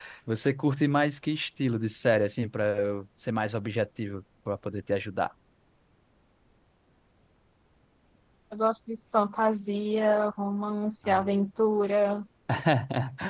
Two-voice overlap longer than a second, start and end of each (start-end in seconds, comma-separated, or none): none